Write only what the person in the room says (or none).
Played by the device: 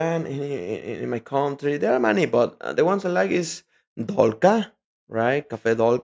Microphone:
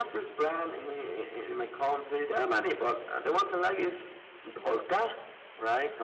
none